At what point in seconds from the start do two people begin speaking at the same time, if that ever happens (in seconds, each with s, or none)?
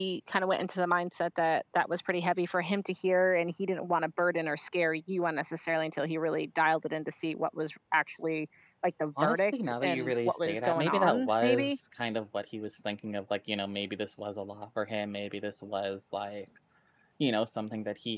9.2 s